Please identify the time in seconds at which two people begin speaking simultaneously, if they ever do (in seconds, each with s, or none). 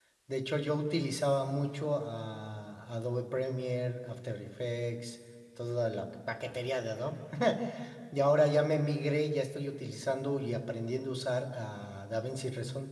none